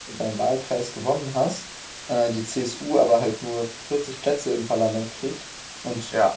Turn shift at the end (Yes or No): No